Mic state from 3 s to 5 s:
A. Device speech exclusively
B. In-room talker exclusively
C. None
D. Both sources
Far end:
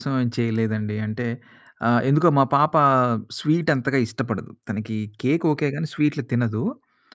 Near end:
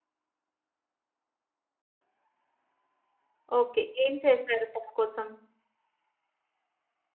B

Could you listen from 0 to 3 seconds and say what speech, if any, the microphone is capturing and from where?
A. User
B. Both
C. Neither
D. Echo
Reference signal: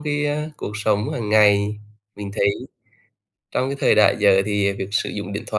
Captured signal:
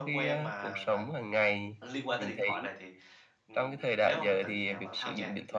B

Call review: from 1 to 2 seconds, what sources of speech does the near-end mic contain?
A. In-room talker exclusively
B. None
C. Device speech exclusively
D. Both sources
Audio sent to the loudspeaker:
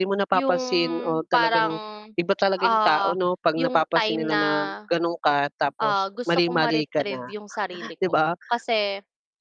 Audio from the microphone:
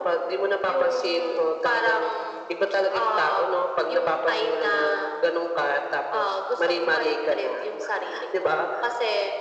C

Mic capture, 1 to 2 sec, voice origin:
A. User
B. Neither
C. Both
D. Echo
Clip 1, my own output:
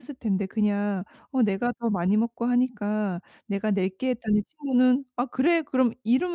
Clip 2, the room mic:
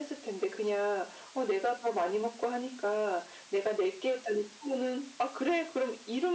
D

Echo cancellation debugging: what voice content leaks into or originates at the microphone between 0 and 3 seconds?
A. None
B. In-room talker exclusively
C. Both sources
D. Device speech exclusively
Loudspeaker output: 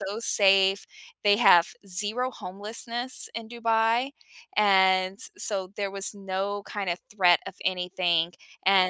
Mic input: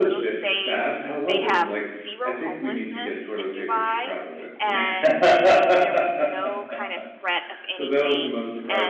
C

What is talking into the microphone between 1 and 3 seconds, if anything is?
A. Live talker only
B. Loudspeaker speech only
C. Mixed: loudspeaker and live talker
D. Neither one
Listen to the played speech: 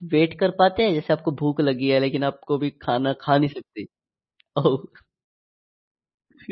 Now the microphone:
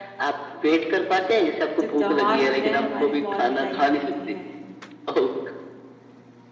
C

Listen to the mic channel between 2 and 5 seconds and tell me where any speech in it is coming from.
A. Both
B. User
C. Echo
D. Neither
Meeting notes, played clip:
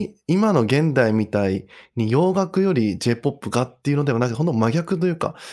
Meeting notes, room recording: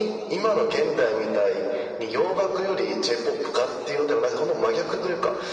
C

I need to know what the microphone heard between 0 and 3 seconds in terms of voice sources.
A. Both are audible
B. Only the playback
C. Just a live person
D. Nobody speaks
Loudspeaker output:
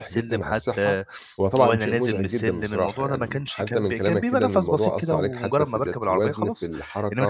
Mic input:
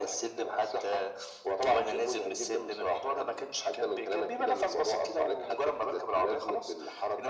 B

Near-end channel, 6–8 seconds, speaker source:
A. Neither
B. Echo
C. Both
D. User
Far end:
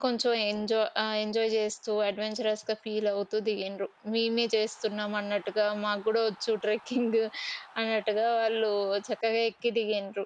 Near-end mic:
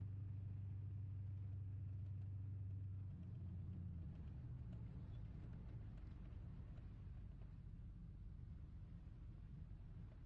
A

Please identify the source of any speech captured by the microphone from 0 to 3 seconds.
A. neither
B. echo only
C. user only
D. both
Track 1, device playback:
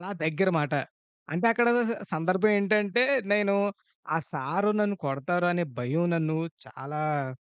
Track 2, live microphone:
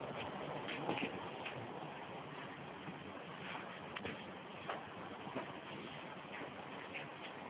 A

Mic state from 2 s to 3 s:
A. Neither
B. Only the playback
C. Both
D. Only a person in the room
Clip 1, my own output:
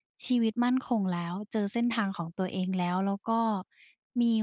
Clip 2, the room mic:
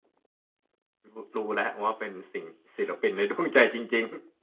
D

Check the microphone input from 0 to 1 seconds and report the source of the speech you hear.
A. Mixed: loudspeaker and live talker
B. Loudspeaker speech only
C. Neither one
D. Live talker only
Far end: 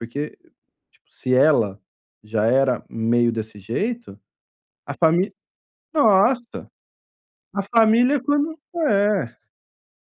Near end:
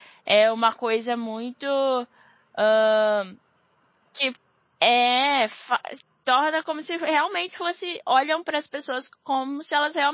D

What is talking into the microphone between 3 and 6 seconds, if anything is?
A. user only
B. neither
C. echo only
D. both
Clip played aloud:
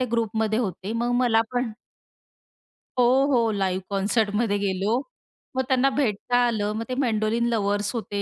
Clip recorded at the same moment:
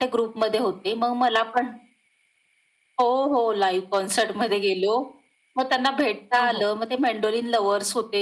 C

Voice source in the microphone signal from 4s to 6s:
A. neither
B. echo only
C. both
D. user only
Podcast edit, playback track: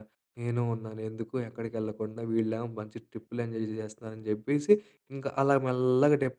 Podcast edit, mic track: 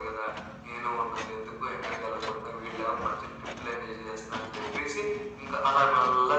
B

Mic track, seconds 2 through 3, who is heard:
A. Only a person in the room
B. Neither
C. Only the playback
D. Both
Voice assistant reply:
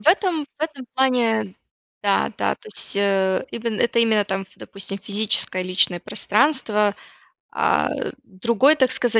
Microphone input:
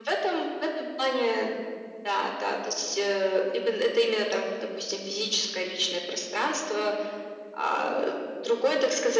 C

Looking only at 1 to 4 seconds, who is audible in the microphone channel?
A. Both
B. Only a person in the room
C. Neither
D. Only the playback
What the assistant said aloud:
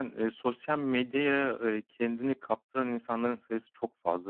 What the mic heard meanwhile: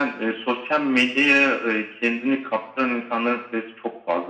D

